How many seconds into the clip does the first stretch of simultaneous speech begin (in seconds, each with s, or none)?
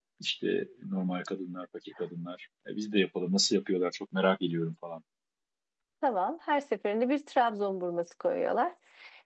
none